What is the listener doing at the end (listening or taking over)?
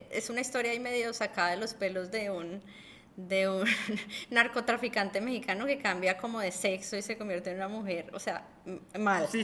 taking over